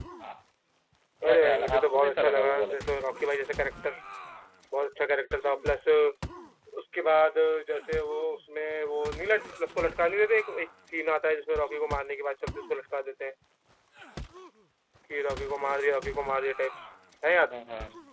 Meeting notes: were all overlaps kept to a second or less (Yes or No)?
No